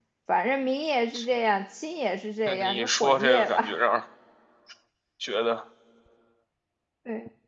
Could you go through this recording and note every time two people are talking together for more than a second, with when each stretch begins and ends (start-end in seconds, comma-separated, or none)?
2.5-3.8